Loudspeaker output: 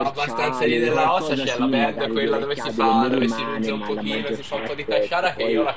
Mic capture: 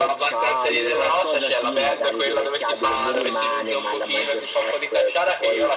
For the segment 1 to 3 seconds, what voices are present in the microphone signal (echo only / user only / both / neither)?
echo only